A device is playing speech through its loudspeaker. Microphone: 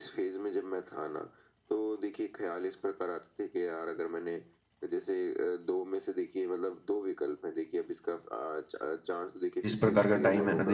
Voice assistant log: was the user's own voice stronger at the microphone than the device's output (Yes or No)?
Yes